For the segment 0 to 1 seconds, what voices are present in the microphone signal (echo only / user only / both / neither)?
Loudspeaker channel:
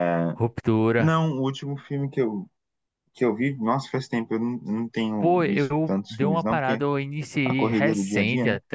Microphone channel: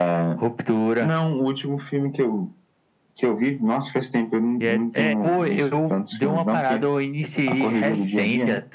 echo only